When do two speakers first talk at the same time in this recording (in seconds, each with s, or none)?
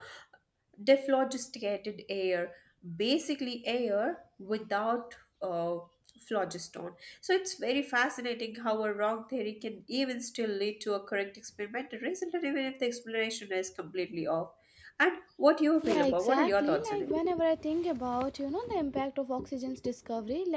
15.8 s